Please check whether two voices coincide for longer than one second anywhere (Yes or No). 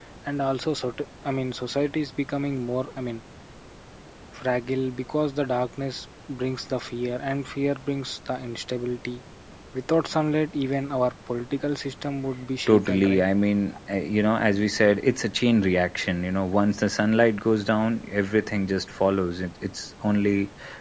No